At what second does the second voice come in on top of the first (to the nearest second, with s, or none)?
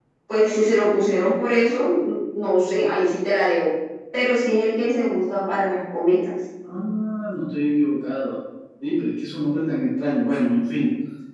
none